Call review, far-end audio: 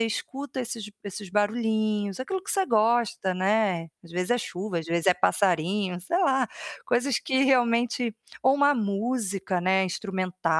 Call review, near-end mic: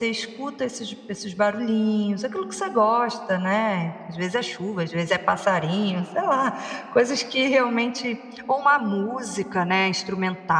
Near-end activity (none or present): none